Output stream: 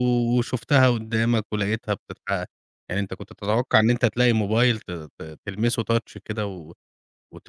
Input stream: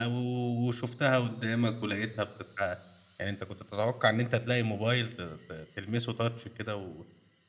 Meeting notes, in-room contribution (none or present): none